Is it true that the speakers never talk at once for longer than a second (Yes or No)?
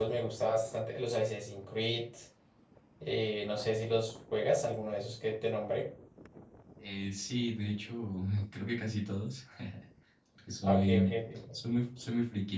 Yes